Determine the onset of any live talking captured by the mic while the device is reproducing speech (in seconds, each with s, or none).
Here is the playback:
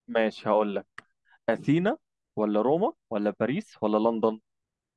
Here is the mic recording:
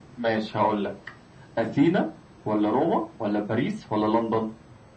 none